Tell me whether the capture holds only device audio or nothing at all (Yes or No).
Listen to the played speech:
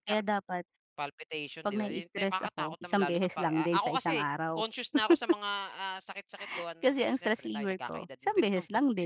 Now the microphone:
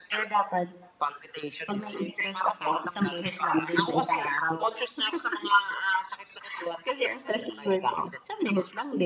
Yes